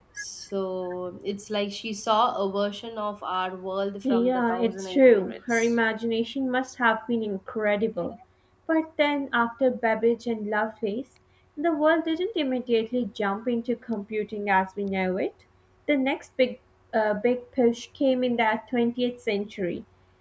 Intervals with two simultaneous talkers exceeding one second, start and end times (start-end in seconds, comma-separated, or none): 4.0-5.7